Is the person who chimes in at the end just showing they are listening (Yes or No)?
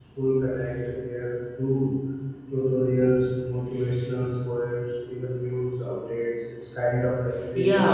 No